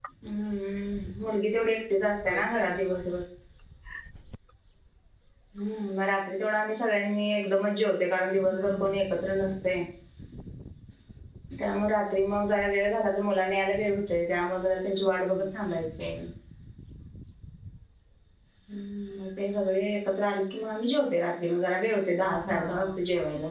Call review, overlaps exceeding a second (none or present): none